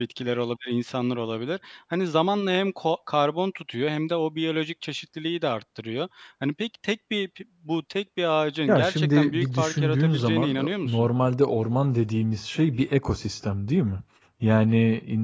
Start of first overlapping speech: 9 s

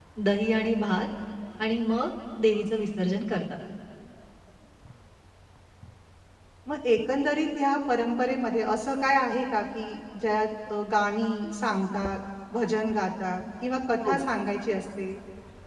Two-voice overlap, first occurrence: none

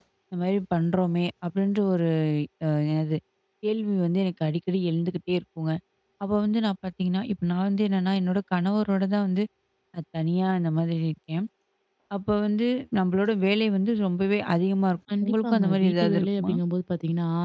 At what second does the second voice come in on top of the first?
15 s

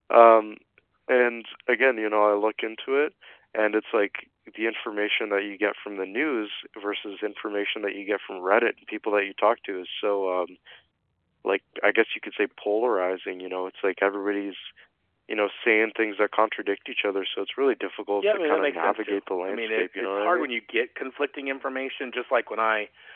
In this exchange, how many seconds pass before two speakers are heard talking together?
18 s

